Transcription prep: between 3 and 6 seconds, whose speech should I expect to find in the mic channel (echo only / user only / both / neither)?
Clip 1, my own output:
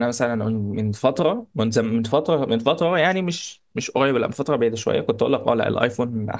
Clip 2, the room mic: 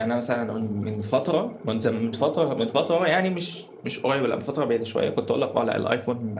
echo only